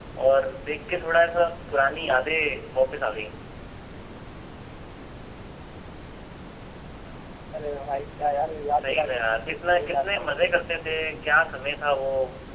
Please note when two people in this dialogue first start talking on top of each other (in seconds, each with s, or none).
8.8 s